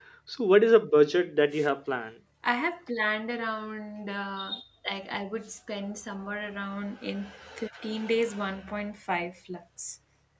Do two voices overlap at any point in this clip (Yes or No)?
No